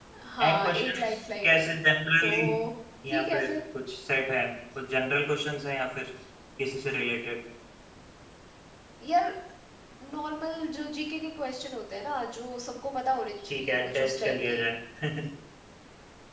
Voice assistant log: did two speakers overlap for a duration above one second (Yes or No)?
Yes